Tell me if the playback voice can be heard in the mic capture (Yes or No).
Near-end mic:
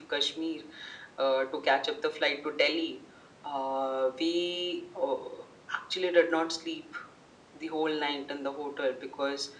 Yes